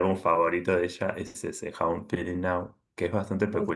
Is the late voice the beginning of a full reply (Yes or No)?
No